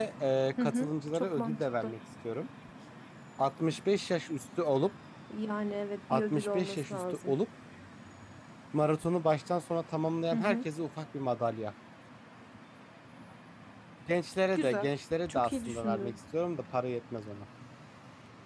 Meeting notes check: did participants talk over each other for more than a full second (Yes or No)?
Yes